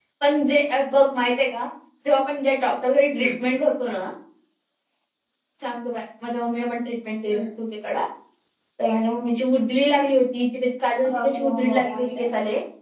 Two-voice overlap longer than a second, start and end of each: 11.0-12.3

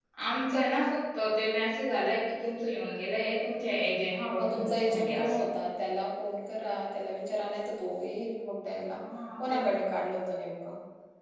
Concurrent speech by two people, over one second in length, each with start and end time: 4.1-5.4

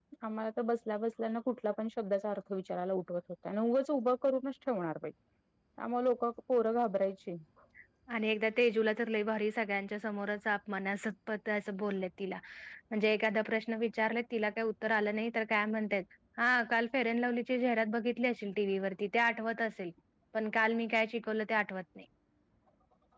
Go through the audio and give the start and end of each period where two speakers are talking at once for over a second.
none

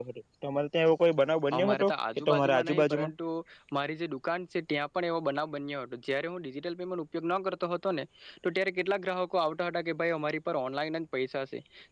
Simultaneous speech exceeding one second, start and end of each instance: 1.6-3.1

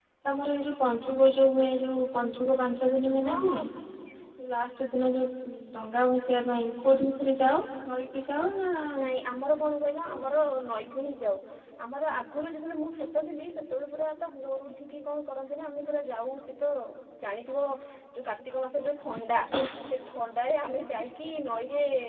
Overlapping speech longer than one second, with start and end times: none

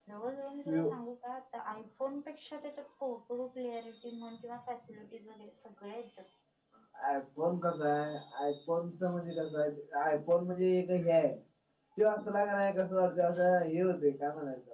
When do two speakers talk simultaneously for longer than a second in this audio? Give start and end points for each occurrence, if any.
none

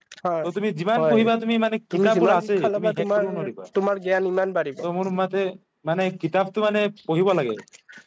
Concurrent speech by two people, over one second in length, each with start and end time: 1.9-3.2

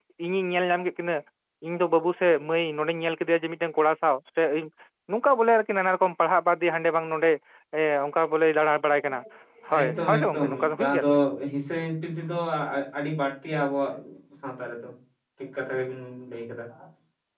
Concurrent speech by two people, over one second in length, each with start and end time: 9.8-11.0

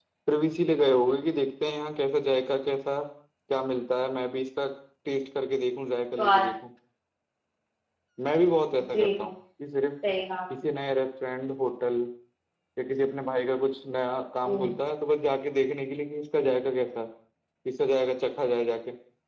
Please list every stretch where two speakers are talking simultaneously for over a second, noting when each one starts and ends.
none

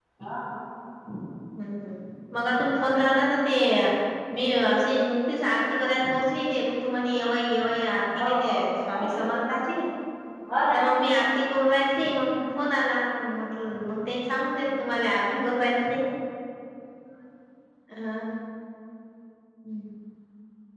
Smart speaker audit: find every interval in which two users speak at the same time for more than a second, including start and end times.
8.2-9.4

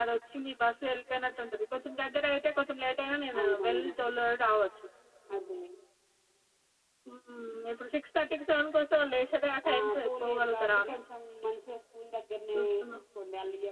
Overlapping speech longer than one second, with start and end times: 9.7-10.9

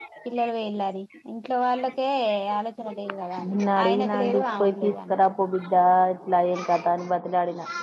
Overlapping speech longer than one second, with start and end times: 3.4-5.2

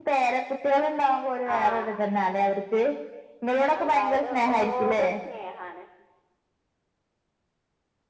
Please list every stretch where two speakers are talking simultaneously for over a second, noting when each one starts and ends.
3.8-5.0

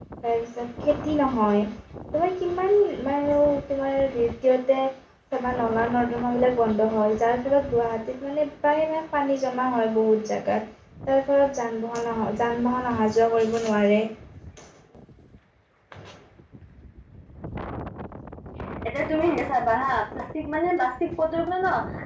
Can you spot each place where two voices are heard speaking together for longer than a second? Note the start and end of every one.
none

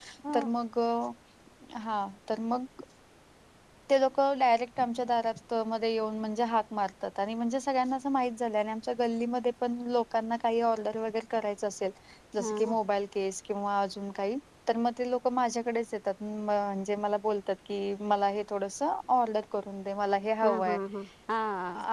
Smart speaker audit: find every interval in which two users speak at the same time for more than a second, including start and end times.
none

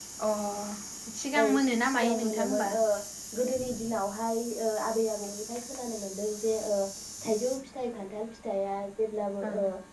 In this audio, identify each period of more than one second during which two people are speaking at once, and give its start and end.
1.4-2.6

